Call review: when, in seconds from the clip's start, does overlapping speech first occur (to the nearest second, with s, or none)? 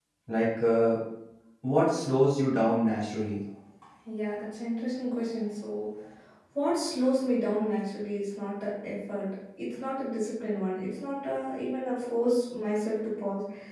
none